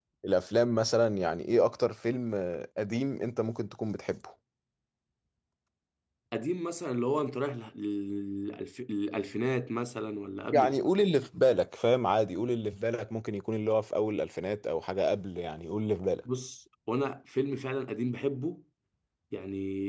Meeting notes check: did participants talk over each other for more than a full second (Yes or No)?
No